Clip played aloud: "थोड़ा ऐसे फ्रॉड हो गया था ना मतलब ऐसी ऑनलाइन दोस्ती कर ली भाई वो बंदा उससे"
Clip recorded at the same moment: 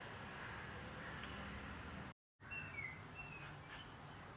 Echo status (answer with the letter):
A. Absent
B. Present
A